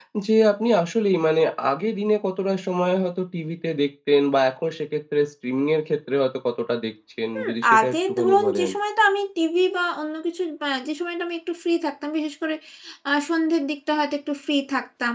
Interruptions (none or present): present